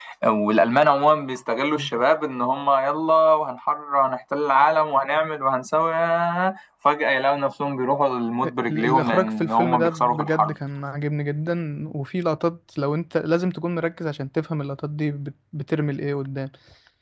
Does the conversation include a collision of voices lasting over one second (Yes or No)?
Yes